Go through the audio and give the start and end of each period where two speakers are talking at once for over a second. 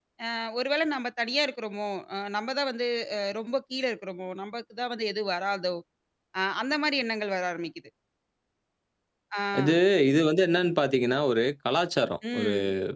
none

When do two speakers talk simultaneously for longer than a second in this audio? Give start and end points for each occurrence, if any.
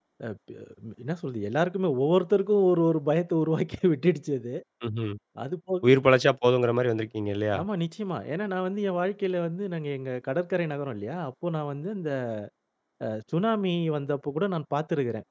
none

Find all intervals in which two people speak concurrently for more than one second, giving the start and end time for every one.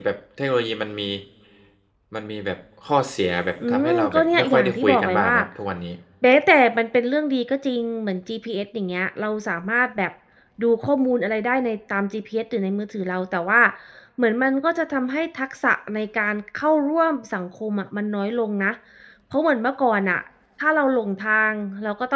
3.7-5.3

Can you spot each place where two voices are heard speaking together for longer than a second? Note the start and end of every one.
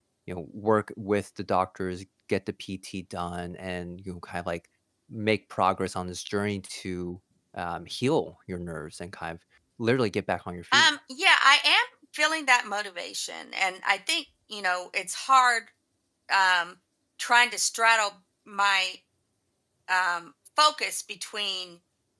none

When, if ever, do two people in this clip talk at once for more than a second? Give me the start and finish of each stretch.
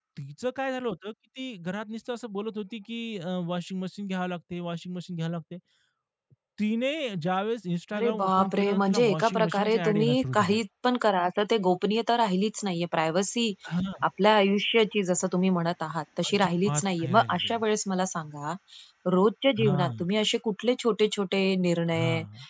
8.0-10.6, 16.3-17.5

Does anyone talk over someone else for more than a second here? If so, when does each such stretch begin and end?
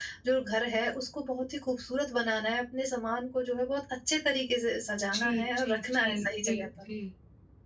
5.1-6.7

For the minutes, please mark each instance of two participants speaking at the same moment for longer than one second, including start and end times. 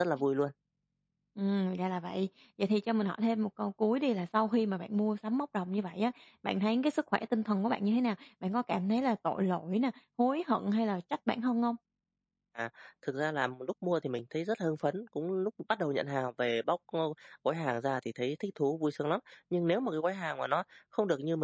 none

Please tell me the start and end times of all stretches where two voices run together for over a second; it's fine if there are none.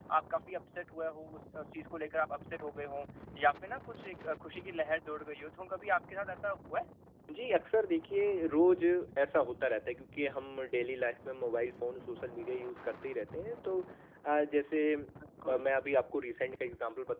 none

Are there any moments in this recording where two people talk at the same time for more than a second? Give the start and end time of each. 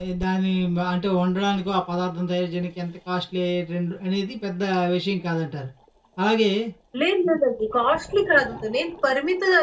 none

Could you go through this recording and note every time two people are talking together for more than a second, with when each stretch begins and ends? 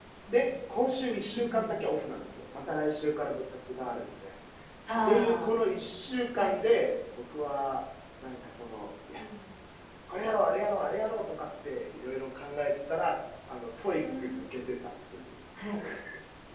none

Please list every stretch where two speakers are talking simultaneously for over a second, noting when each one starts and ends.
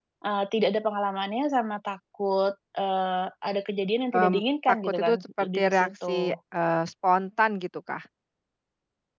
4.7-6.2

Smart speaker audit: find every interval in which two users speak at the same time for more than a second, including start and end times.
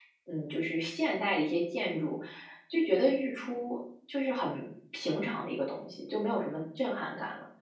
none

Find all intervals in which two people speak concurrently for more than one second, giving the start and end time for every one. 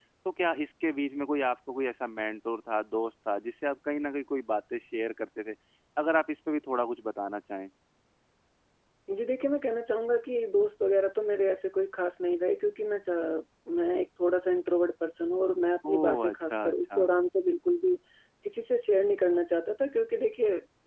15.9-17.1

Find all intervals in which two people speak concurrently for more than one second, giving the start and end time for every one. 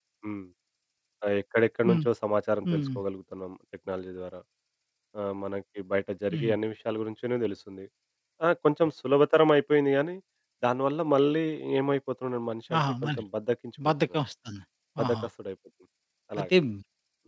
none

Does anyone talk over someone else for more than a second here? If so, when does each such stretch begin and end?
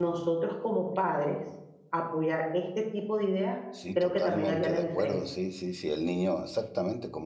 4.0-5.2

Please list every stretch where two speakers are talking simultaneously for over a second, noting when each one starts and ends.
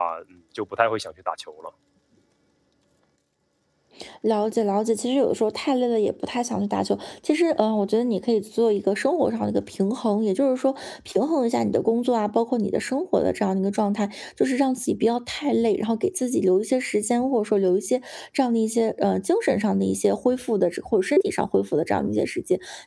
none

